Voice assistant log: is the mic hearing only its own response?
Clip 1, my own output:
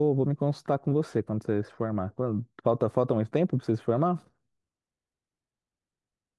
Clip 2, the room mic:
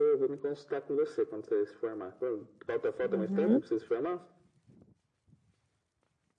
No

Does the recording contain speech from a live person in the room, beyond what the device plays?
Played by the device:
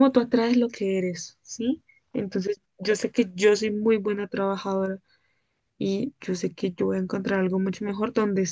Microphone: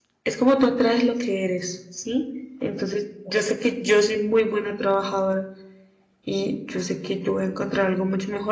No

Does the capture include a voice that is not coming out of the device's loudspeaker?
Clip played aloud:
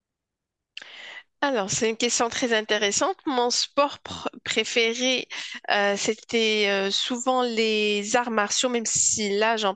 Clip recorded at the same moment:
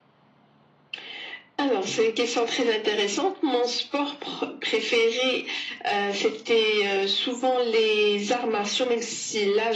No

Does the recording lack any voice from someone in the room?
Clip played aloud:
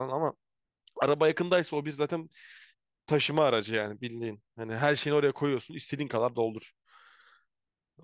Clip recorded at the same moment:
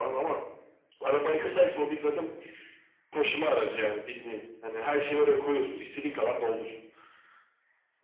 Yes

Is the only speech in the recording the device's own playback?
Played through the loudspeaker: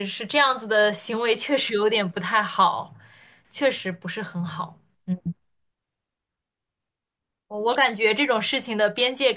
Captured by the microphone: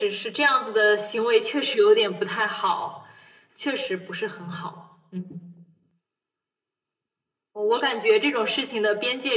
Yes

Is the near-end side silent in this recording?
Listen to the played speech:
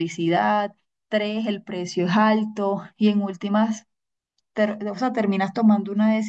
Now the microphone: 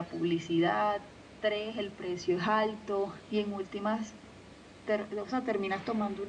Yes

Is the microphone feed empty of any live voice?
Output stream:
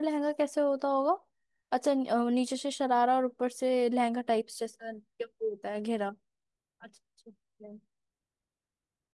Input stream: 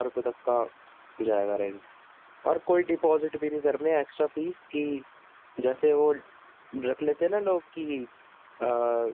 No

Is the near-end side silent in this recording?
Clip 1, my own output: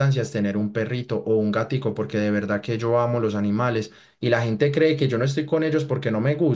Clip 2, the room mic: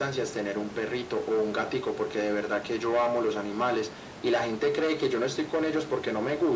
Yes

